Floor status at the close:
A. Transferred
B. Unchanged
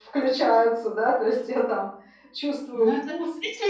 A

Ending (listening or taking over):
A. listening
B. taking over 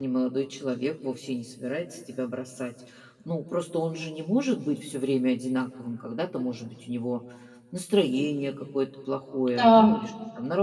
A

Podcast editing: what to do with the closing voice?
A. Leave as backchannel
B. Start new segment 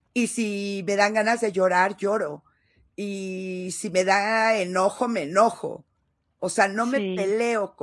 A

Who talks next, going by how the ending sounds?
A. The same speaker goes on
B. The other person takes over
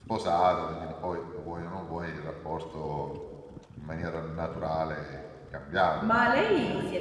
B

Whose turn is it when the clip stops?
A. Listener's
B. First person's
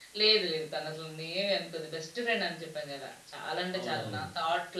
B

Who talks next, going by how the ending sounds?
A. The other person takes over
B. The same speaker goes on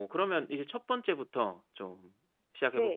A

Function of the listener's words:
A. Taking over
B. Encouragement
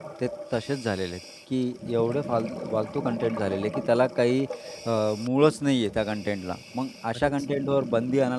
B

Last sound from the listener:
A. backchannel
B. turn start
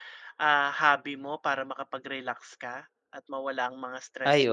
B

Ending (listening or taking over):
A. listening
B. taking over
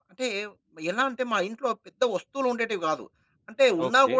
A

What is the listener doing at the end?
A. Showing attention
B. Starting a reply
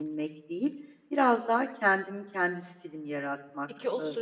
B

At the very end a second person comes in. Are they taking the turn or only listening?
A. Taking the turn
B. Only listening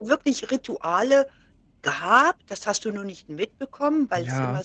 B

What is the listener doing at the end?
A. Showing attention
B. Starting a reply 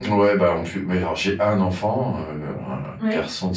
A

